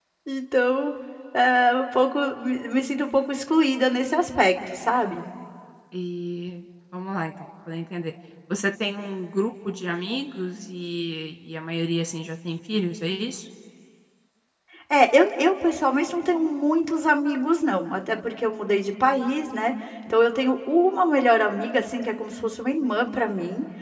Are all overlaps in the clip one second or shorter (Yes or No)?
Yes